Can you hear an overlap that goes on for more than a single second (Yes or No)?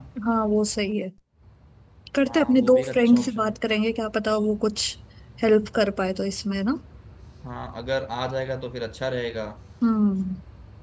Yes